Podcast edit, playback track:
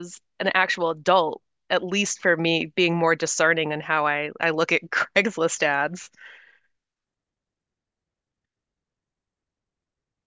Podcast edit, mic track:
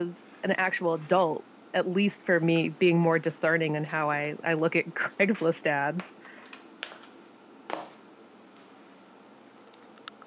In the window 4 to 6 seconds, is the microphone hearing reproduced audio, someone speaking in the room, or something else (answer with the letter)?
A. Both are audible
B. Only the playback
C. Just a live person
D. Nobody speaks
B